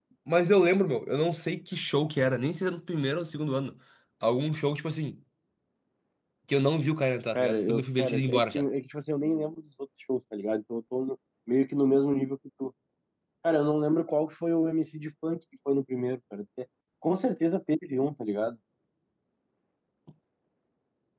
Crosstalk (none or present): present